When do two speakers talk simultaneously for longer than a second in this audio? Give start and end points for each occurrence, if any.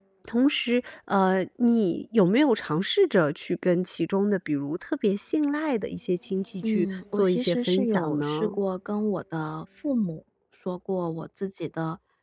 6.6-8.6

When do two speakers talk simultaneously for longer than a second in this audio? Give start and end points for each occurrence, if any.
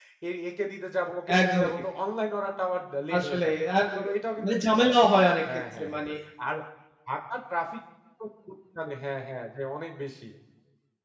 none

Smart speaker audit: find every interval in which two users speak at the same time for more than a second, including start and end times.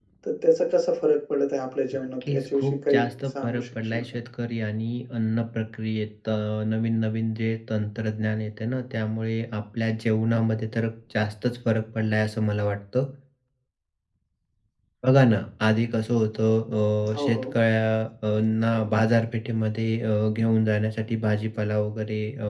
2.2-4.0

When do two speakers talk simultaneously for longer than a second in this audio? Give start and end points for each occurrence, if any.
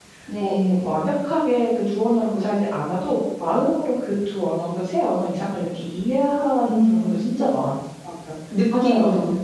none

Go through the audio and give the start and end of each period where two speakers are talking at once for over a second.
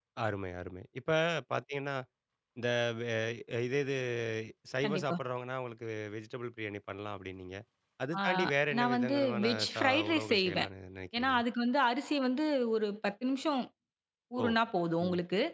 8.8-10.7

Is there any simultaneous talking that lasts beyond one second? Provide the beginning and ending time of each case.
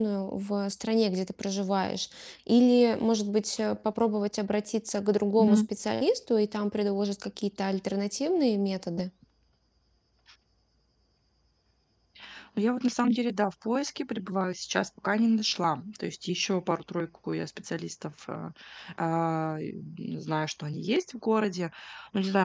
none

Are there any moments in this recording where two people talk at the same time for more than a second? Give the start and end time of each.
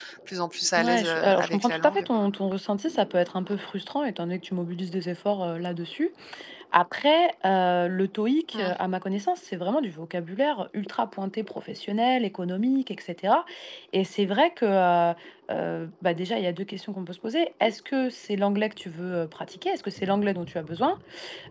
0.8-2.1

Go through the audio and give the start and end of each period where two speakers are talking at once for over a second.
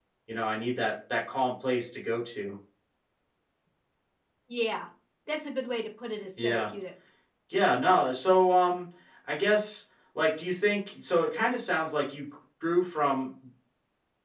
none

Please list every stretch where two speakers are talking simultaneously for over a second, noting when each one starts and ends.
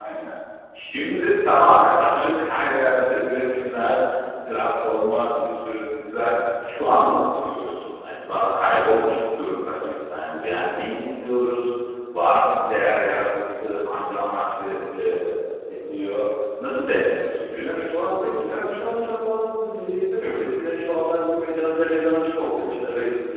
17.6-19.1

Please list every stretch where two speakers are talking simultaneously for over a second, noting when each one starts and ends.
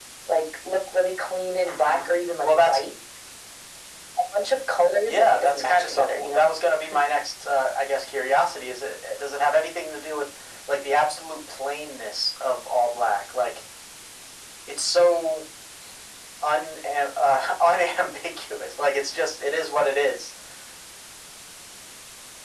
5.1-6.5

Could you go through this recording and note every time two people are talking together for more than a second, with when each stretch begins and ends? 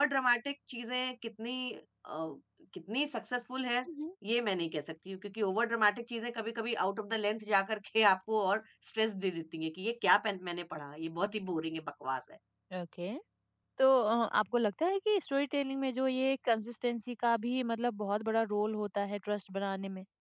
none

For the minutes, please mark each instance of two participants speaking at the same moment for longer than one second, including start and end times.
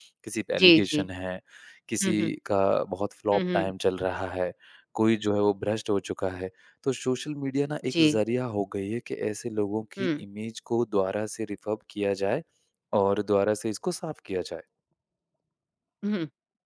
none

